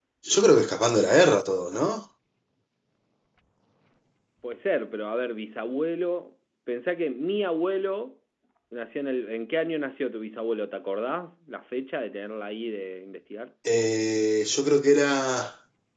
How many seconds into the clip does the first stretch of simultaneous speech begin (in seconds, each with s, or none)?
none